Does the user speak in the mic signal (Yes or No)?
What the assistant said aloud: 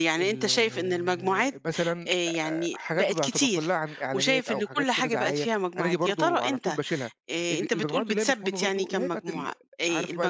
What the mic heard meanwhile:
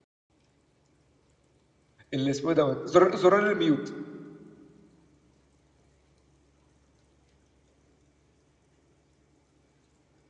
Yes